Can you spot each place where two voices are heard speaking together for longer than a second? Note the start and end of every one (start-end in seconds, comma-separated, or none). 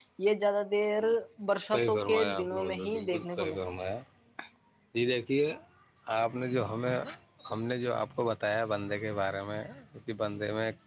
1.7-3.6